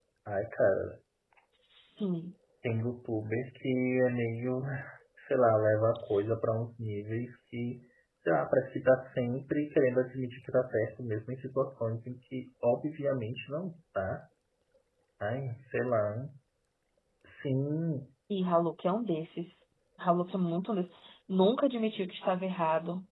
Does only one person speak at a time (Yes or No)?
Yes